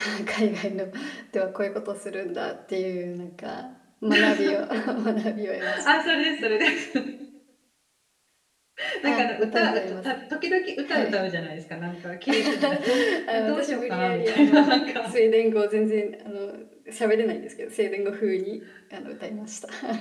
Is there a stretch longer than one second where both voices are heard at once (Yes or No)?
Yes